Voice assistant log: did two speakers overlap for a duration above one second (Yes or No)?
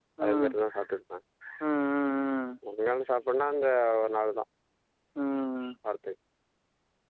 No